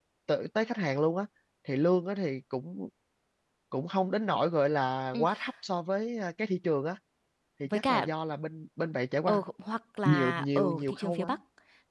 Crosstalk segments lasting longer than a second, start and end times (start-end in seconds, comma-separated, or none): 10.1-11.3